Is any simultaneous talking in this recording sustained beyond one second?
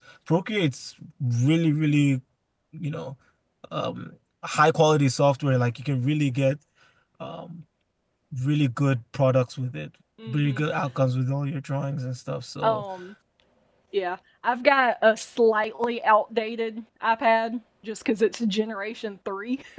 No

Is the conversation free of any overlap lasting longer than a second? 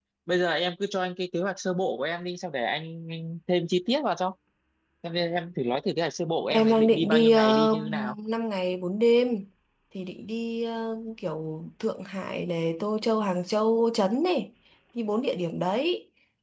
No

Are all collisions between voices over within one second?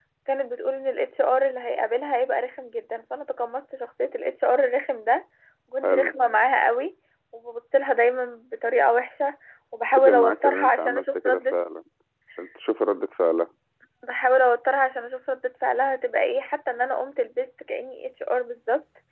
No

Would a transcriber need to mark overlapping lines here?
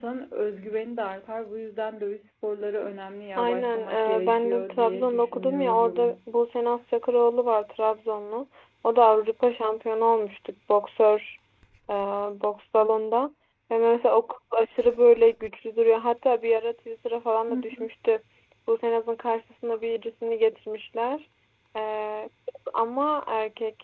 Yes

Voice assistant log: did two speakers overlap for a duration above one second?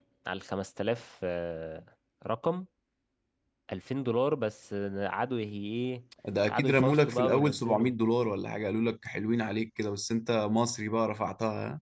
Yes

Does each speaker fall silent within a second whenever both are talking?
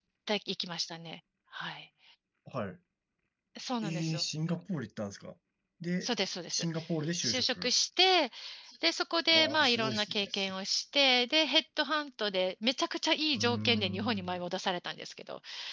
No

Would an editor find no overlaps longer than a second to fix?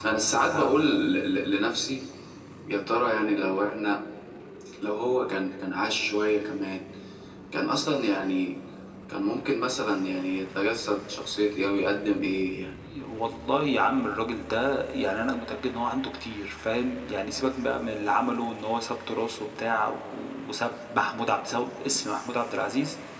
Yes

